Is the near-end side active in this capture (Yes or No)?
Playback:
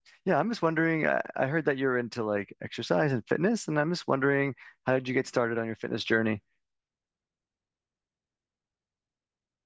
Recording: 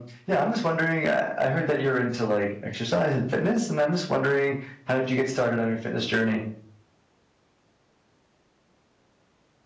No